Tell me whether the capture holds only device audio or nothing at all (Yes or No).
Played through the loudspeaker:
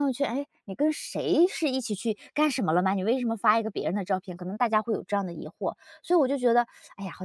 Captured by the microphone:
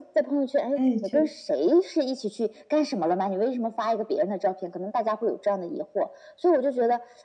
No